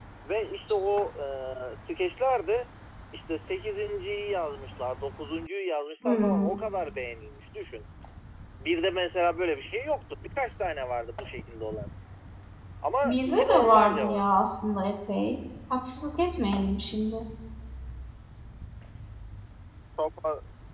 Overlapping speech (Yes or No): Yes